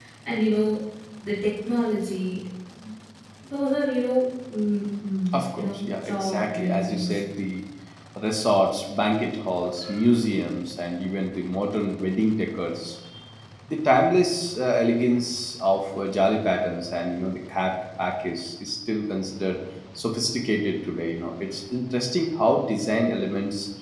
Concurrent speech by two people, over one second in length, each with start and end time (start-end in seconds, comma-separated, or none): 5.3-7.2